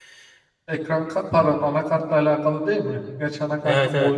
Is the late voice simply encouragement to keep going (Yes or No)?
No